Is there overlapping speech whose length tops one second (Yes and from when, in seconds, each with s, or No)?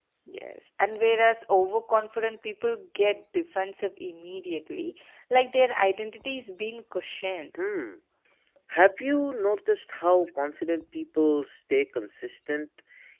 No